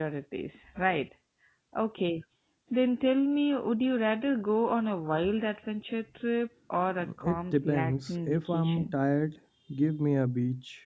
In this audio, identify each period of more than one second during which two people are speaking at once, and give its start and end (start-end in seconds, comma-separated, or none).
7.2-8.9